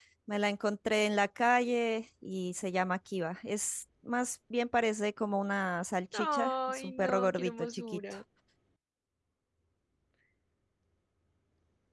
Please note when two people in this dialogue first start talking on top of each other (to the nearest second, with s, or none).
6 s